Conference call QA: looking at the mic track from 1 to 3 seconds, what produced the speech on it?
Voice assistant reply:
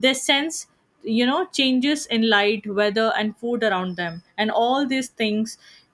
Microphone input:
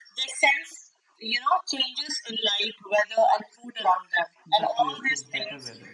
echo only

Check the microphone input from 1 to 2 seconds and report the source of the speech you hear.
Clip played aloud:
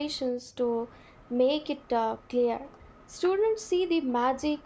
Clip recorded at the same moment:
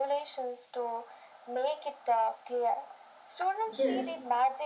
echo only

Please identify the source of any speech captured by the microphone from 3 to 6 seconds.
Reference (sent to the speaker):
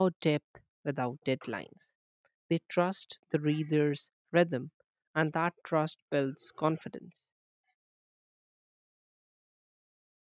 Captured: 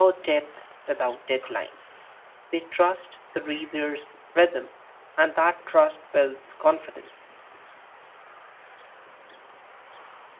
echo only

